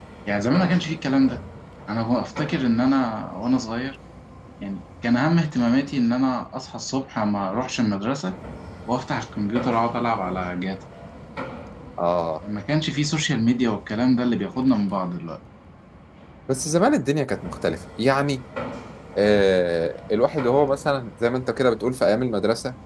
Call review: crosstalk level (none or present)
none